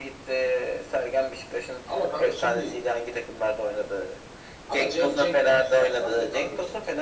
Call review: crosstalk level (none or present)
present